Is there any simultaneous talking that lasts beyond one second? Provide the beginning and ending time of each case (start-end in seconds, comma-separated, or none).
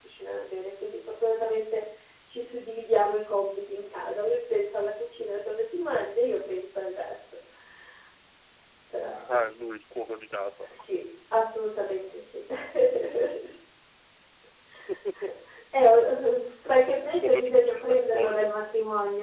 17.2-18.5